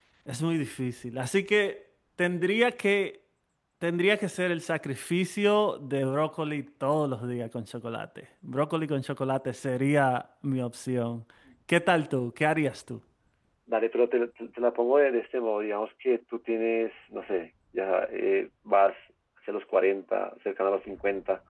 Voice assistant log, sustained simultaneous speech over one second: none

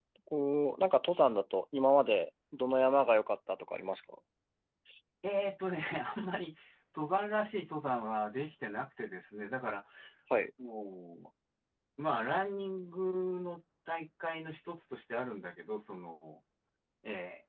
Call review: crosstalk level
none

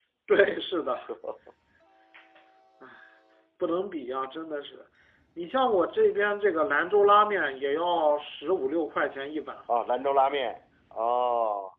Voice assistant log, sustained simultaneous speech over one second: none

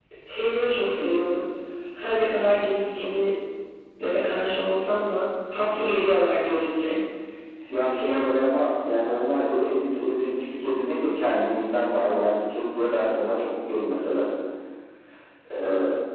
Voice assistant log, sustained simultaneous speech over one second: none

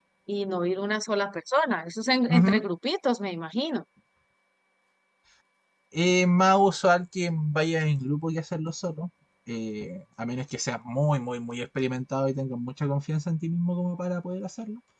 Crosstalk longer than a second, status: none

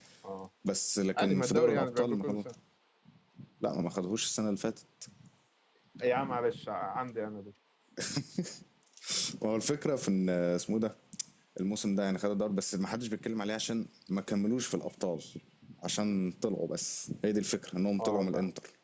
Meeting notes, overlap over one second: present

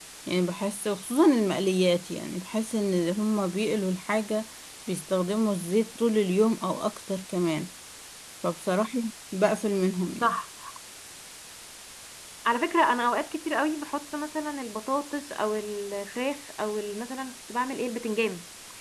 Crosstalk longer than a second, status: none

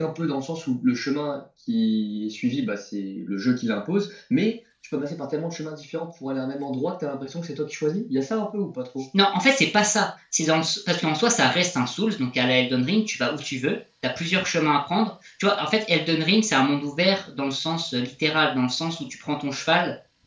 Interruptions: none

